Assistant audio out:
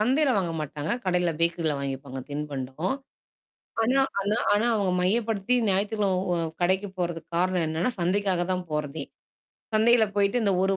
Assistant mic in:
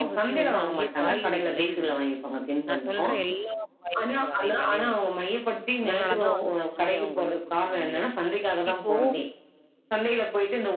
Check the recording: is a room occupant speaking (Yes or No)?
Yes